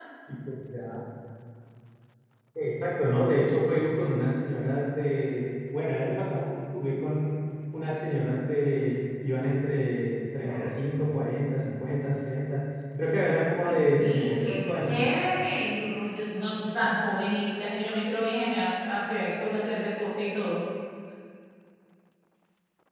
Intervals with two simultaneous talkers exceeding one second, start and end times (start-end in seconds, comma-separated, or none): 13.6-15.0